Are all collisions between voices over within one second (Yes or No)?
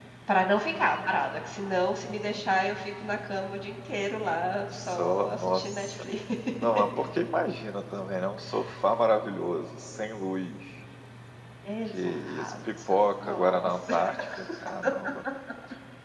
No